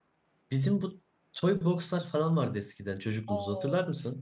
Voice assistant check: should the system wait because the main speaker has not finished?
No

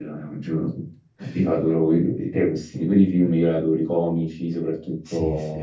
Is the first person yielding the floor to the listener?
No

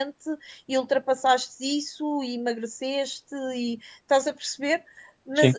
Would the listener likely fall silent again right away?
Yes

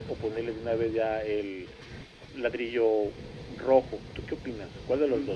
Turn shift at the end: Yes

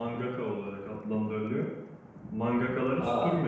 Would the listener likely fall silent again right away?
Yes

